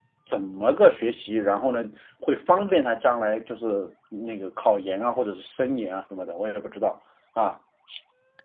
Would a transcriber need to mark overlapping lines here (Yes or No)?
No